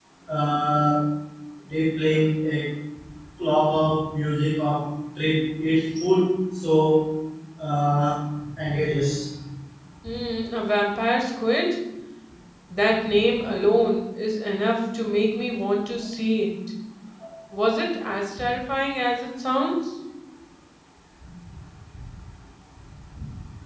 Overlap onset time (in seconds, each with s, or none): none